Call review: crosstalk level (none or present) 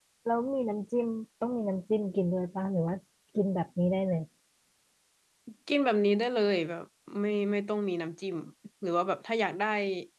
none